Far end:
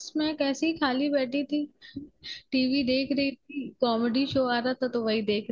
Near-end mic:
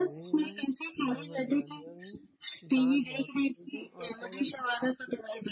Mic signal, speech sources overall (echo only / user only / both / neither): both